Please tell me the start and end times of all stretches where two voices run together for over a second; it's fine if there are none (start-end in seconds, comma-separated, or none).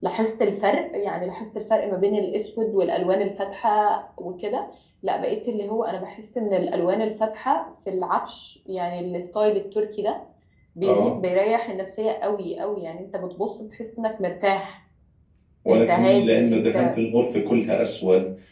15.7-17.0